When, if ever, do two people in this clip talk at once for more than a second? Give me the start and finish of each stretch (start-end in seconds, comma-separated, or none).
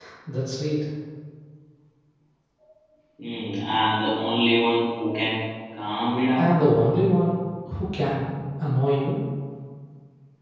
none